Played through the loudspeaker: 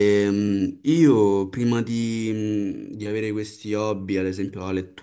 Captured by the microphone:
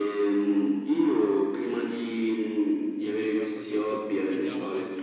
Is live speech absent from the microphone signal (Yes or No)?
No